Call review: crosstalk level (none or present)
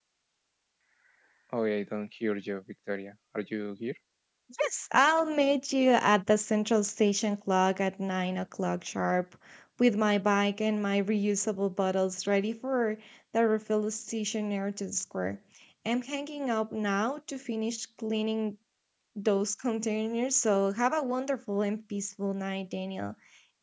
none